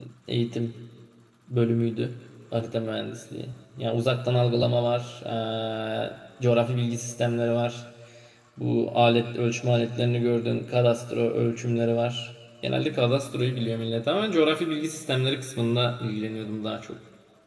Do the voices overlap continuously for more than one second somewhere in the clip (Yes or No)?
No